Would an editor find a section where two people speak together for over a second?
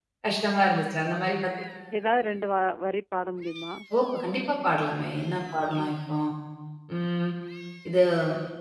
No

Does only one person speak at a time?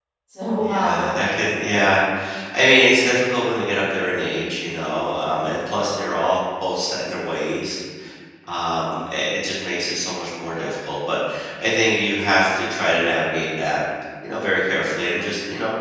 No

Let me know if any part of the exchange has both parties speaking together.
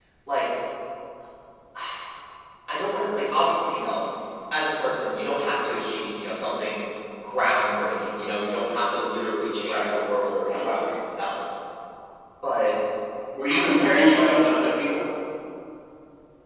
Yes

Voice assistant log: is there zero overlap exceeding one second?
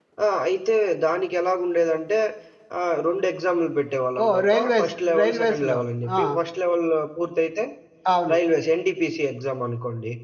No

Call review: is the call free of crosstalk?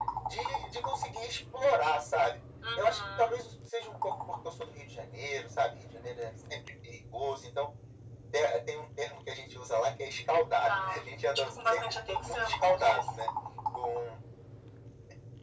No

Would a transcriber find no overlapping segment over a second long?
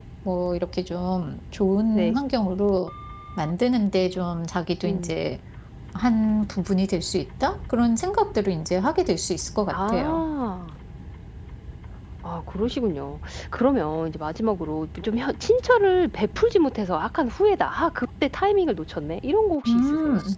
Yes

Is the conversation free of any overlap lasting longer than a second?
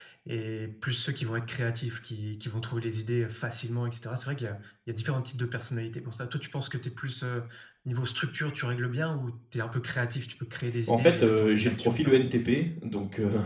No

